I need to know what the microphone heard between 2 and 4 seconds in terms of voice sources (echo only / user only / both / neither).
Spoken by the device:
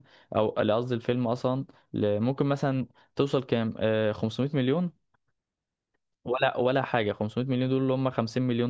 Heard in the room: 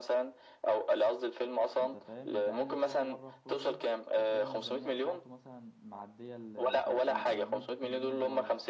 both